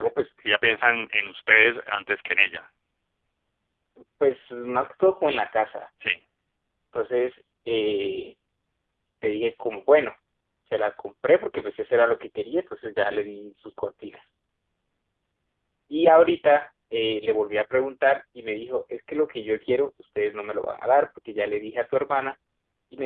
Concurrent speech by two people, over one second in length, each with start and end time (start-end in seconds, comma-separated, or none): none